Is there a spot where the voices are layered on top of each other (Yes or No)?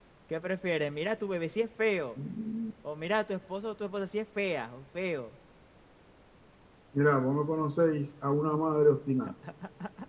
No